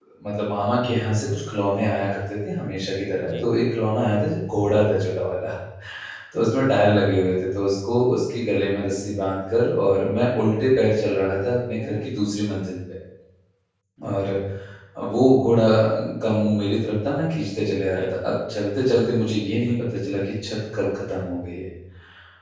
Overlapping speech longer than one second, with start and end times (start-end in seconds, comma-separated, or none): none